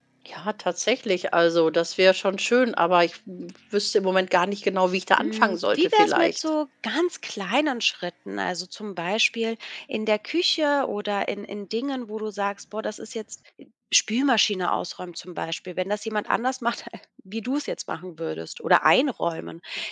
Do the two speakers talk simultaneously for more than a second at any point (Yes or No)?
Yes